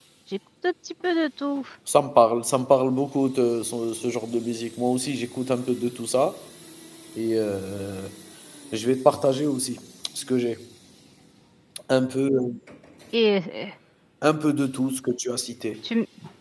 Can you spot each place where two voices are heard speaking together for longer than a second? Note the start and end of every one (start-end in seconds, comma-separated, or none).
none